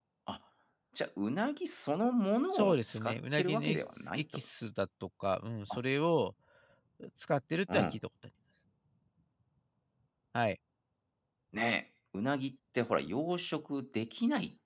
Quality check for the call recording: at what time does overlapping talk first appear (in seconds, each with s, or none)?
2.5 s